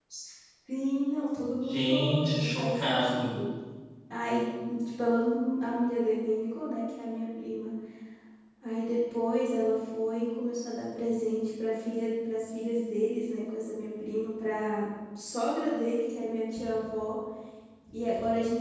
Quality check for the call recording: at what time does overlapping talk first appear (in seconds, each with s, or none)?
1.7 s